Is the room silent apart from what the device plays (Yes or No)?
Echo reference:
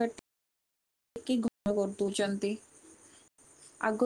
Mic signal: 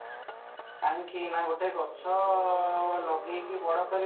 No